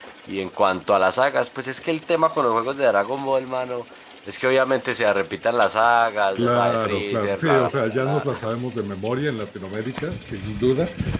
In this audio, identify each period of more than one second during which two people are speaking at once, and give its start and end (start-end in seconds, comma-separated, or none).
6.3-8.5